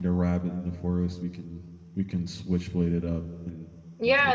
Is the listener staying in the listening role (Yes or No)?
No